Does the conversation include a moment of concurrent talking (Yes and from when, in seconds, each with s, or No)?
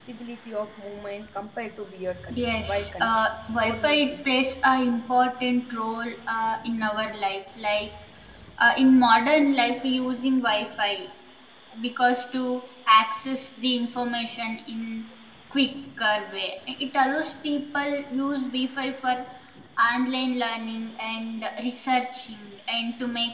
Yes, from 2.0 s